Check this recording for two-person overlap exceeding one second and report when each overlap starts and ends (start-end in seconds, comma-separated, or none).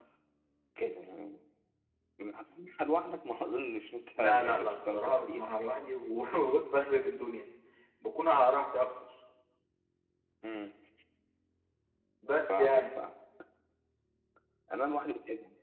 4.2-5.6